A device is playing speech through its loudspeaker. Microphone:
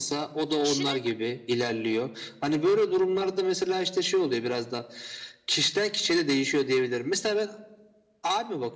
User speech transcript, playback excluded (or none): Kişinin